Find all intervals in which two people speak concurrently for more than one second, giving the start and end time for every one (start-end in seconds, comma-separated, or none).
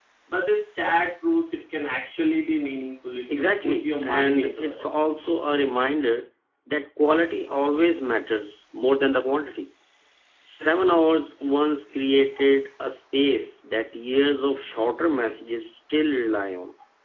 3.3-4.8